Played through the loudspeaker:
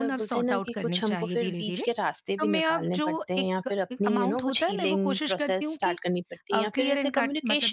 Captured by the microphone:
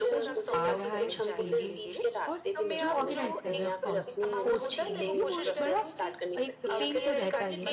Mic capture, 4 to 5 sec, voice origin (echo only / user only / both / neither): both